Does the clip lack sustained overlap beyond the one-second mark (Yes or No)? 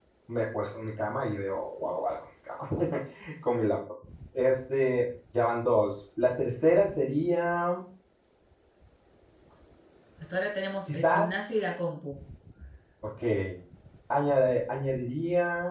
Yes